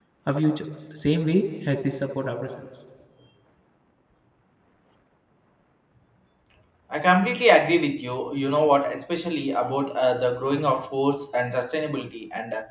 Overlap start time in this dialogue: none

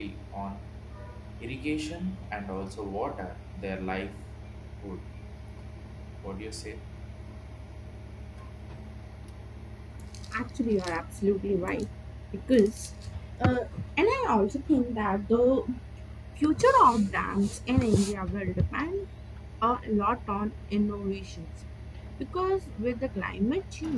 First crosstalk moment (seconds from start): none

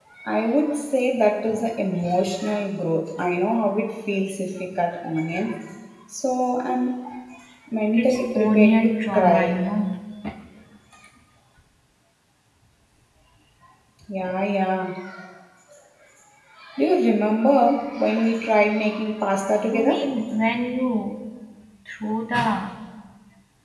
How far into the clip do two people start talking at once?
7.9 s

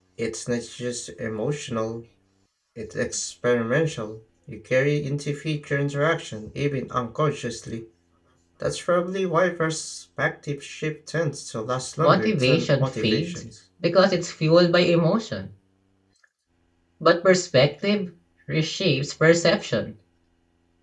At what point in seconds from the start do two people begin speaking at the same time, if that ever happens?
12.0 s

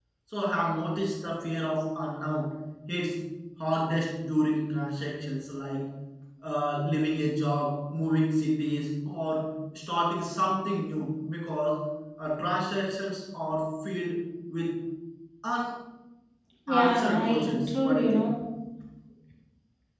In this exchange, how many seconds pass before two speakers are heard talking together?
16.7 s

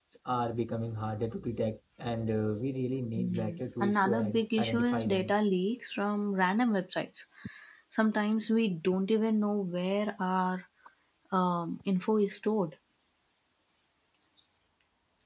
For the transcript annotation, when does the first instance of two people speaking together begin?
3.2 s

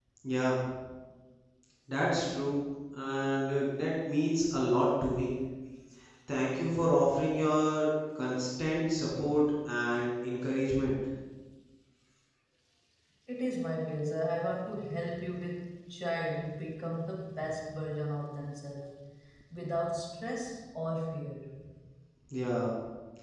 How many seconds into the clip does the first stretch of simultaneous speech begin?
none

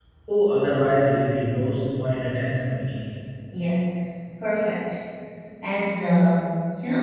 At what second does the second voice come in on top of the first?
none

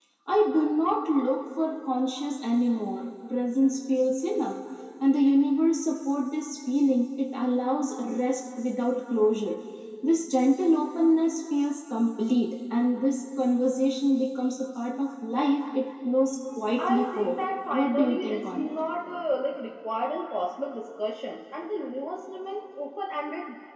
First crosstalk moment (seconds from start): 16.8 s

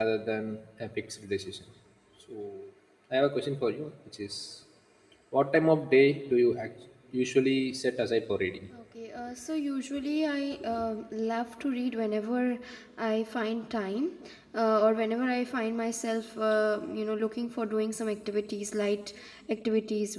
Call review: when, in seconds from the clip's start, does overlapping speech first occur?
none

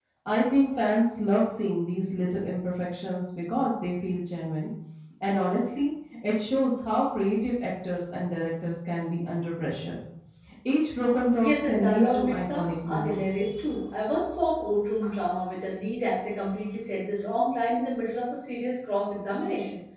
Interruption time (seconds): 11.4 s

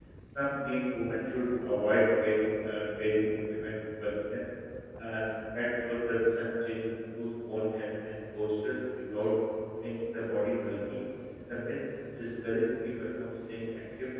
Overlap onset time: none

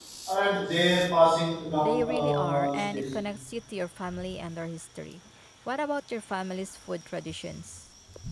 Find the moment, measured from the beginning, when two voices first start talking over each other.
1.8 s

